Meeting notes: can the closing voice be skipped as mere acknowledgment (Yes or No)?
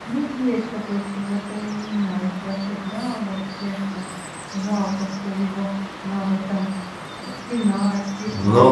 No